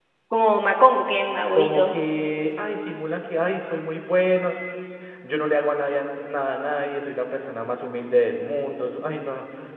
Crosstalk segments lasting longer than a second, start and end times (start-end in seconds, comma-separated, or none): none